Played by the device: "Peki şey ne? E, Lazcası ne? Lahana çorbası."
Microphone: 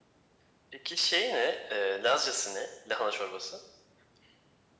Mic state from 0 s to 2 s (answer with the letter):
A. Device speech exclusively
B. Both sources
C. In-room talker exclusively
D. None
A